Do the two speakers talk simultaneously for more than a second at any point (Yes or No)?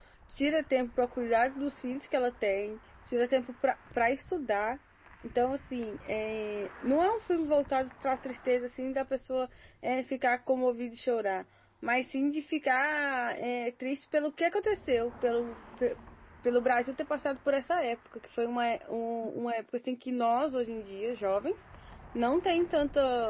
No